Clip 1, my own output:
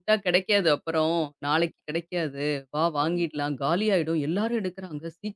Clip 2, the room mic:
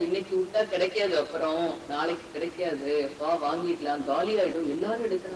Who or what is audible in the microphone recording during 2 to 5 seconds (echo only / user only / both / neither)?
echo only